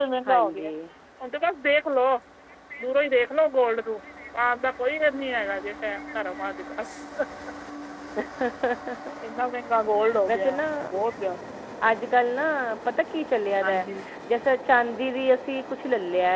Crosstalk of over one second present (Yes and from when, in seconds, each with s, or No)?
No